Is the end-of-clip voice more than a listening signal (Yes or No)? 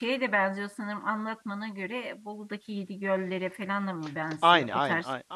Yes